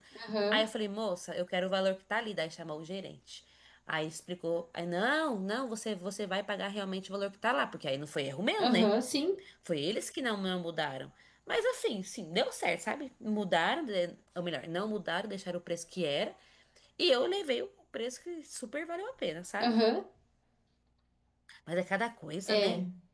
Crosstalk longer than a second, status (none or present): none